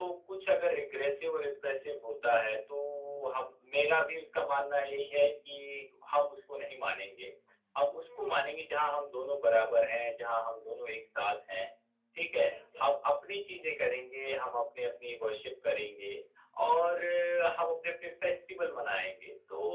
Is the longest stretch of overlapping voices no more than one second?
Yes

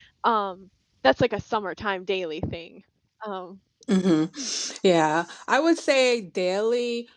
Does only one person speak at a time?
Yes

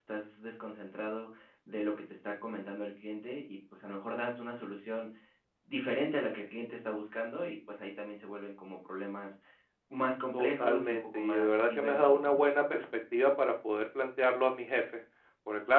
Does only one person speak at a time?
No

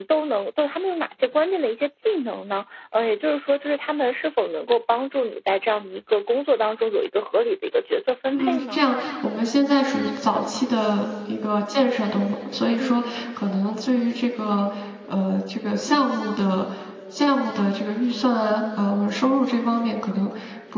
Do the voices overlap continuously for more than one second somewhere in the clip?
No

